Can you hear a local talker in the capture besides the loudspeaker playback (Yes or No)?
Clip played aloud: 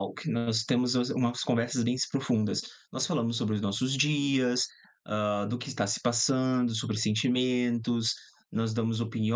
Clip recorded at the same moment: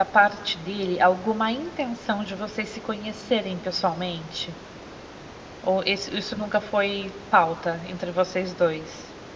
Yes